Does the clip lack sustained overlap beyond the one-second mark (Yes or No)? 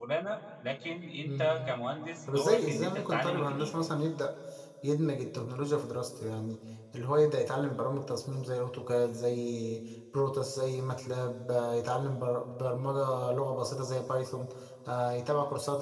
No